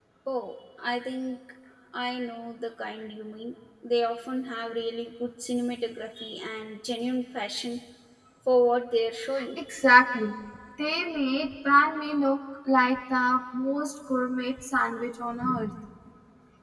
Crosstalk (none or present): none